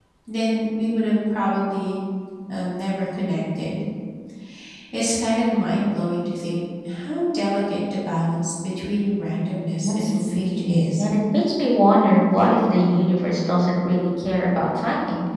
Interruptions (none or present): present